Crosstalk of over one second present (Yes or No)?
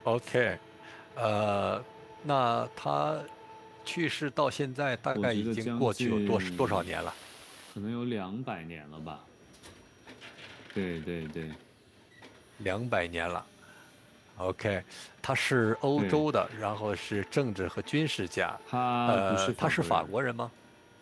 Yes